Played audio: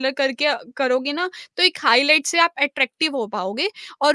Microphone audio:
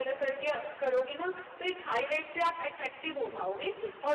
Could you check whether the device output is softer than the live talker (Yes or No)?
No